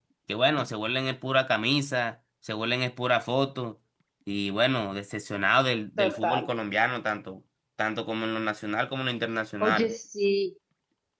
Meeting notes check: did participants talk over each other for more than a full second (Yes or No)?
No